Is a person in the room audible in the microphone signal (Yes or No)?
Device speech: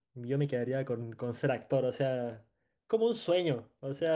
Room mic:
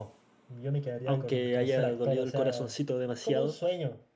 Yes